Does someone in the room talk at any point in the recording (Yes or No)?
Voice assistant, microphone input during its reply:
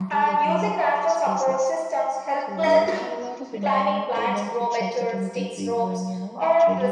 Yes